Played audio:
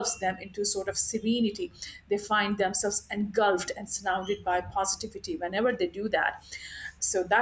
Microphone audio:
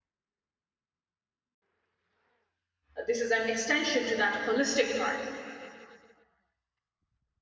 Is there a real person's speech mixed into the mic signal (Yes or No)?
Yes